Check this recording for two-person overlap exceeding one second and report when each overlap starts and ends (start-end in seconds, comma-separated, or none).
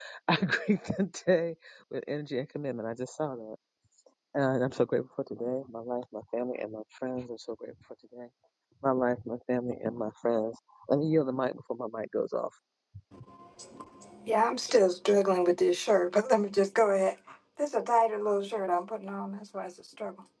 none